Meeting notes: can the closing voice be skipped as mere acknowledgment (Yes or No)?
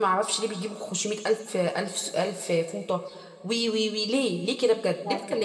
No